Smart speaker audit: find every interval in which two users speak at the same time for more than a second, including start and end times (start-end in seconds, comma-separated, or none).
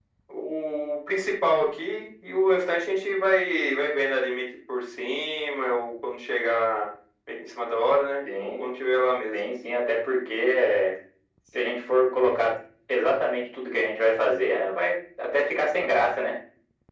none